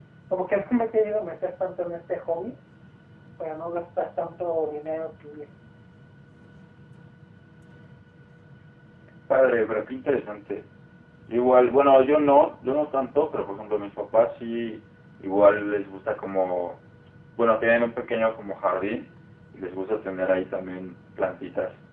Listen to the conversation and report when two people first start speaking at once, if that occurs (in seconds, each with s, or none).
none